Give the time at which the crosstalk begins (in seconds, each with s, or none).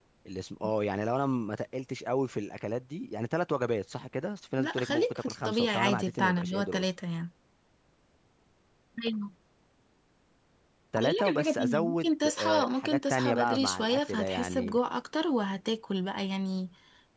4.6 s